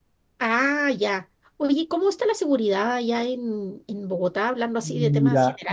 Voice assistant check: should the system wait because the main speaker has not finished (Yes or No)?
No